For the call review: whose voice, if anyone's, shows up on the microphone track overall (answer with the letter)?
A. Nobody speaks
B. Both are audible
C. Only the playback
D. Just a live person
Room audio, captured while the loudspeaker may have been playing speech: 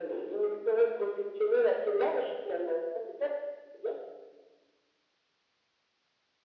C